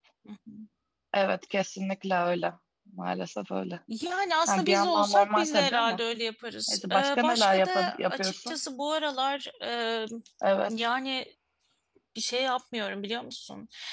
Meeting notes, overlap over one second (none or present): present